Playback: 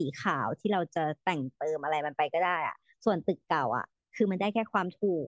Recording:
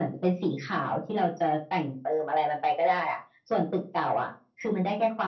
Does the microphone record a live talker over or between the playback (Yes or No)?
No